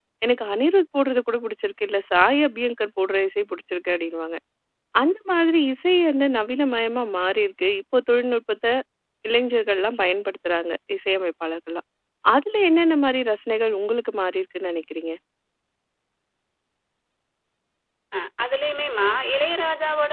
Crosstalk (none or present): none